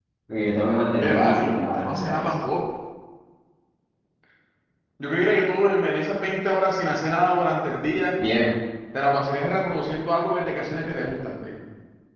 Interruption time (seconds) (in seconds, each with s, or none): 1.0 s